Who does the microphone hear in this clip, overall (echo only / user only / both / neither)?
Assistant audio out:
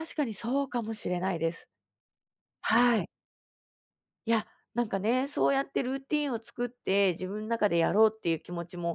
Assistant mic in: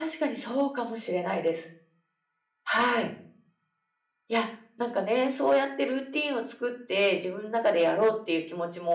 echo only